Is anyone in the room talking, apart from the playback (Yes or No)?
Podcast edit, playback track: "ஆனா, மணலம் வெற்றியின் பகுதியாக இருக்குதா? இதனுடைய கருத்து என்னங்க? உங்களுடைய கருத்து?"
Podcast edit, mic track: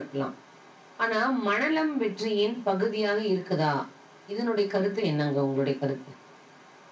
No